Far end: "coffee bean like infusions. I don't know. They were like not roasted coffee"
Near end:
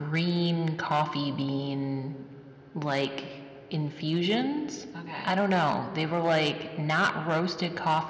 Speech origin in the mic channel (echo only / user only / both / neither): both